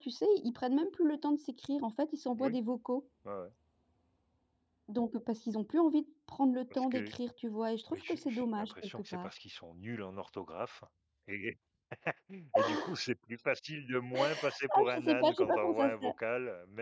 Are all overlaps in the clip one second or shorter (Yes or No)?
No